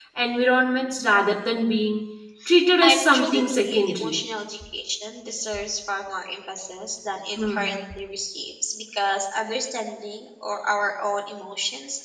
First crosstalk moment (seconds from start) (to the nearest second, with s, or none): 3 s